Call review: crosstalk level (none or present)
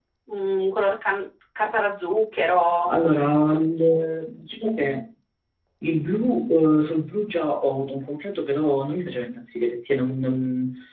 none